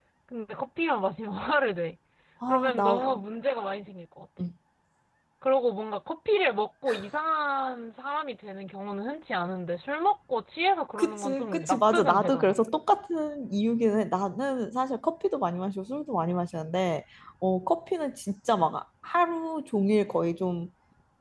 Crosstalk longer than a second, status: present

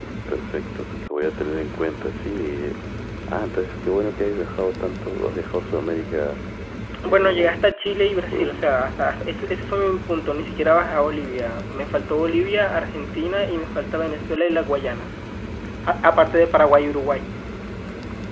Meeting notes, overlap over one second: none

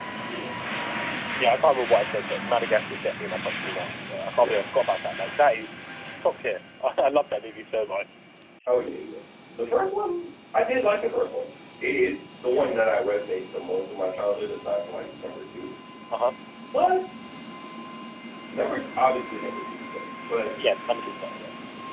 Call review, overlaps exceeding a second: none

